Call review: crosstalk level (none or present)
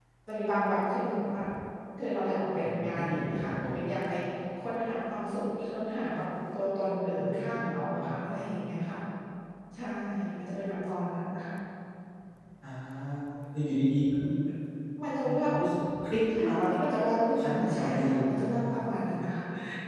present